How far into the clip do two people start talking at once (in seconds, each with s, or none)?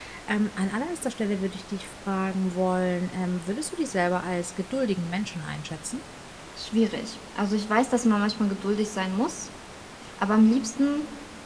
none